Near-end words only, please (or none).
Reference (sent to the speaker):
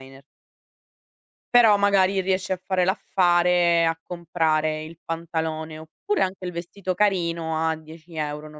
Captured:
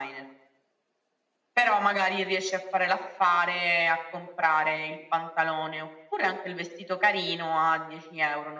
none